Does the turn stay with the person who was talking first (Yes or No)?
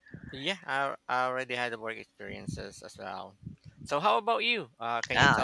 No